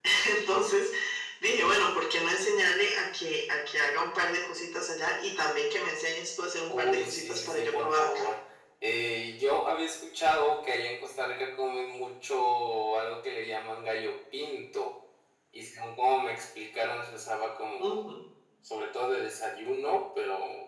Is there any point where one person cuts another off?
Yes, from 6.7 s

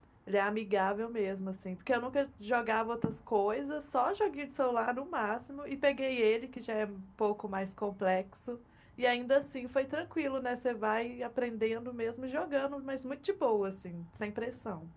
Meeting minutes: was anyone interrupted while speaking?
No

